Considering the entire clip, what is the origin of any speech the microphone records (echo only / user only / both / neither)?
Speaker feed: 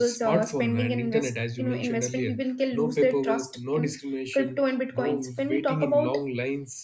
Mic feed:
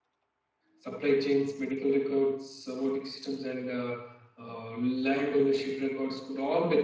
user only